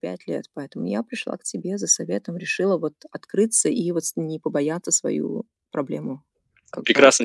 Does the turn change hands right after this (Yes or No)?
Yes